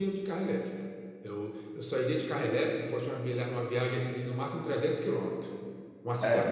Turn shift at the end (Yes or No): No